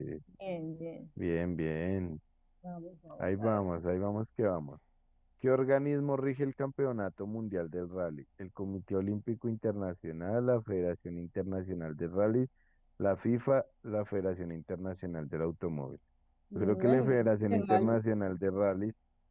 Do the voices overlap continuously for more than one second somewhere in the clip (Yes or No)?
Yes